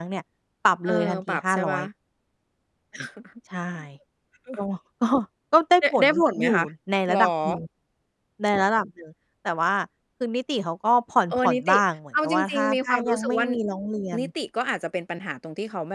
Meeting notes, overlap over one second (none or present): present